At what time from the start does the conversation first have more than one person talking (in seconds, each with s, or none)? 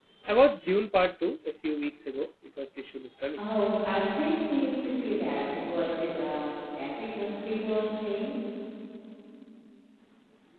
none